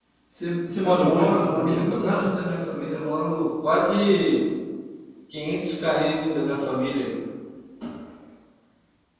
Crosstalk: present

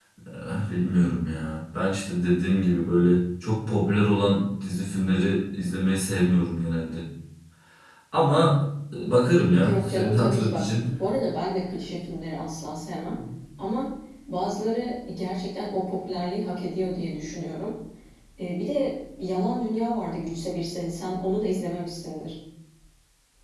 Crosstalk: present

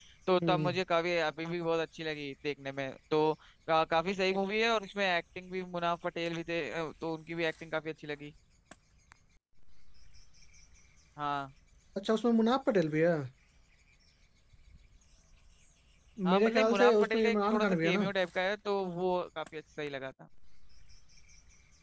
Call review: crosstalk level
present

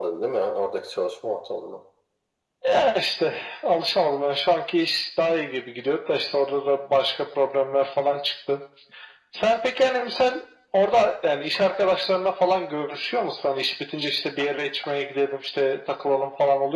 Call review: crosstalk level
none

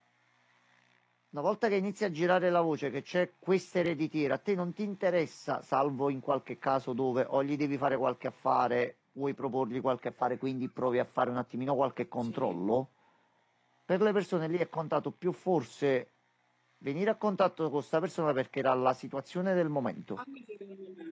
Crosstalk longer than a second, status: none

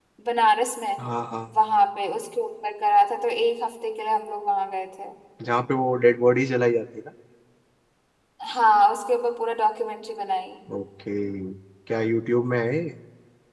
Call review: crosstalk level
none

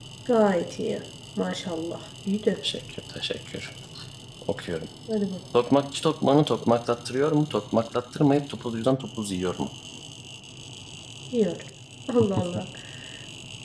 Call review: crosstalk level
none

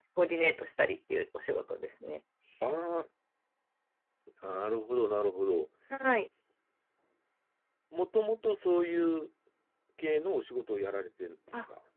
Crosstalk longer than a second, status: none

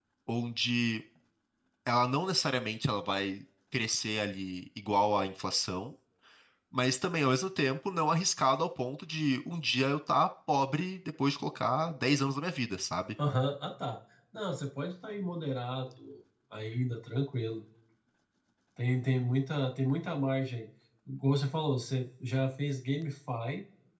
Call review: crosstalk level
none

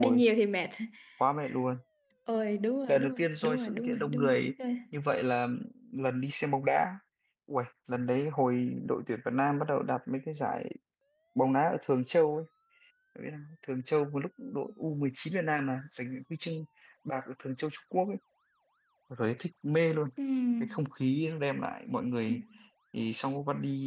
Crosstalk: present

